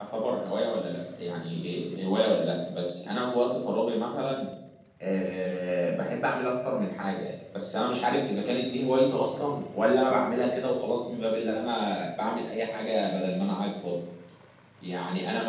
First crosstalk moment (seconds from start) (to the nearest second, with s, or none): none